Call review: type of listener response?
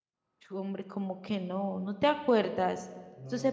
listening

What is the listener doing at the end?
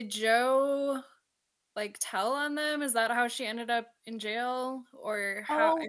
taking over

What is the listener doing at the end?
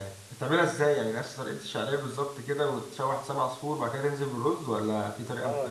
taking over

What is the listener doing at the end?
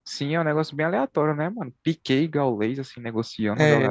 taking over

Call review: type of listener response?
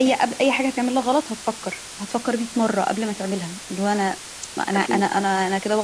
listening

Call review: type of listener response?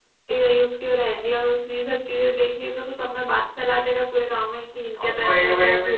taking over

